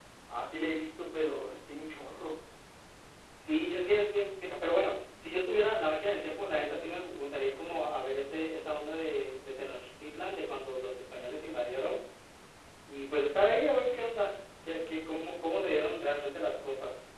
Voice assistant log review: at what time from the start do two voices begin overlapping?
none

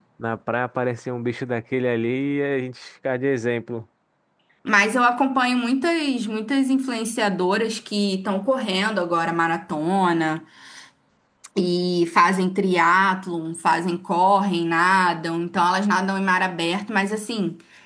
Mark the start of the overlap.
none

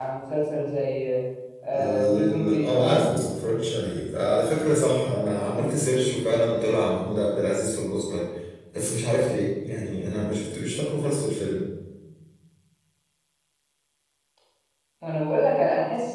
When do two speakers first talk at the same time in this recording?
1.8 s

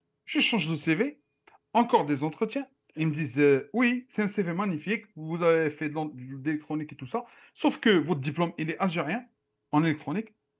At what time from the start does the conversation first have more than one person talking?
none

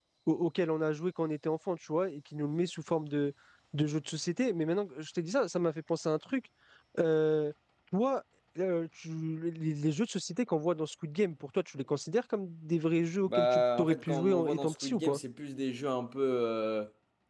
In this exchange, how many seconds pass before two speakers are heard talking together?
13.3 s

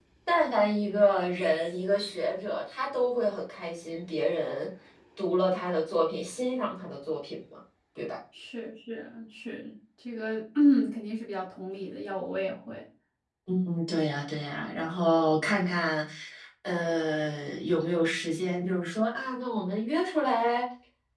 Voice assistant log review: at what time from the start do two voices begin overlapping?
none

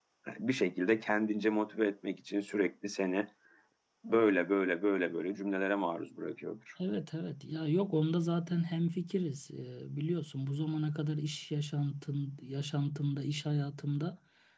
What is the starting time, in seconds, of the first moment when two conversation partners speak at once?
none

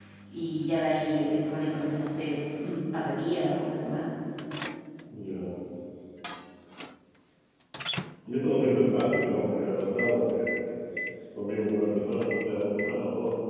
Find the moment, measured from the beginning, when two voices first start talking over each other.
none

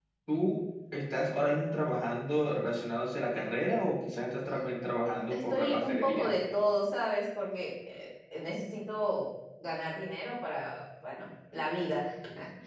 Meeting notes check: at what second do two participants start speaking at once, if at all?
5.0 s

